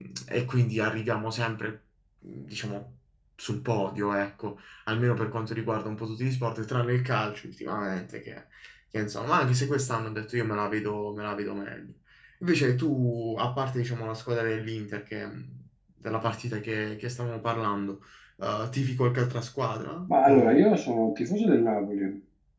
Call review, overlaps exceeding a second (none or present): none